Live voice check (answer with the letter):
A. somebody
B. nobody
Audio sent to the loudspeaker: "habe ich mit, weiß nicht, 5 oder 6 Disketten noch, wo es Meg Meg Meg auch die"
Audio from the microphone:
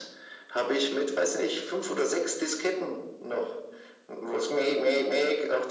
B